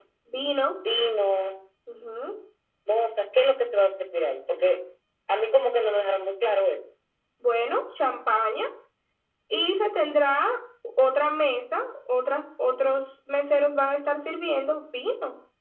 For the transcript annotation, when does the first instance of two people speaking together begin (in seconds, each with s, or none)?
none